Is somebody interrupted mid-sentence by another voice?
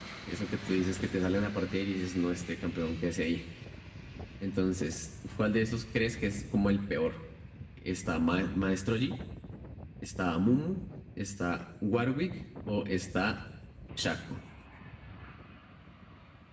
No

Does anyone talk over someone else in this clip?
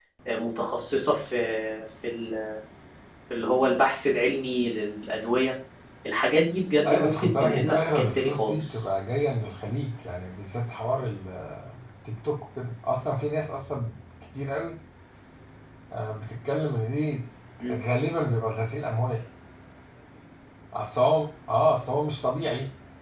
Yes, from 6.8 s

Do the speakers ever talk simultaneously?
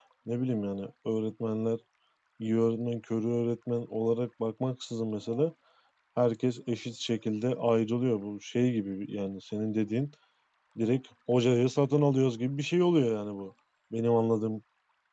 No

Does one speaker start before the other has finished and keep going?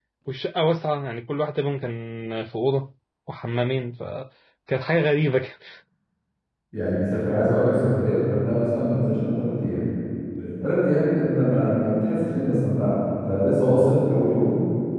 No

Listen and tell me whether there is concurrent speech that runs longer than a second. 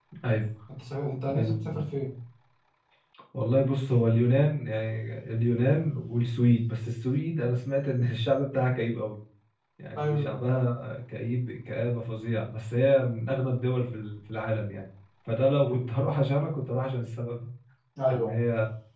No

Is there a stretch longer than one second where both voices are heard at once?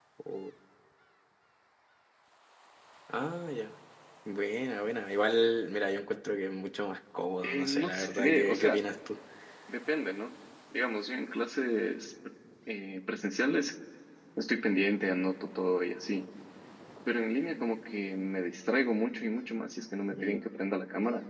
Yes, from 7.4 s

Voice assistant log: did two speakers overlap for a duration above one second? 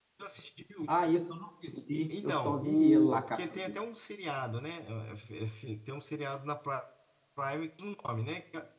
Yes, from 2.1 s

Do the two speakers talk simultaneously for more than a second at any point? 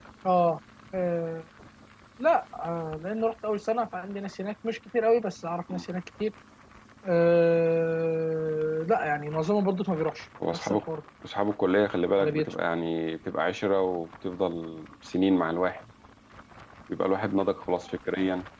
No

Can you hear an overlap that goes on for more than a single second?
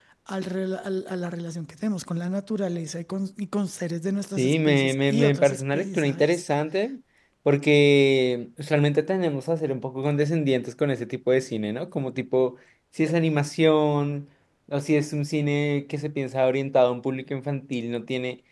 Yes, from 4.4 s

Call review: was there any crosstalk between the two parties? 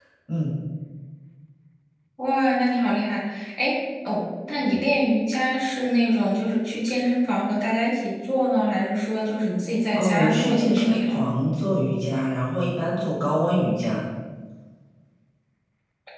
Yes, from 10.0 s

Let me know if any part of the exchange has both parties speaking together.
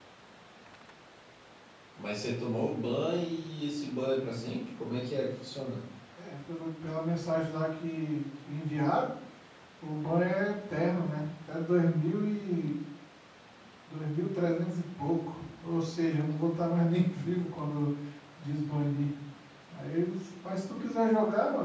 No

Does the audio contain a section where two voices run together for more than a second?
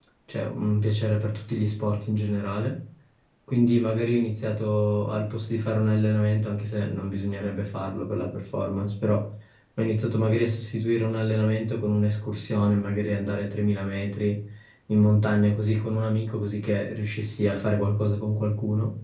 No

